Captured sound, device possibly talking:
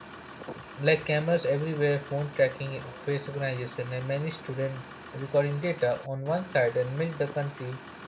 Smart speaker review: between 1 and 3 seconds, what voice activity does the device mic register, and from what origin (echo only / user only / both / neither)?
user only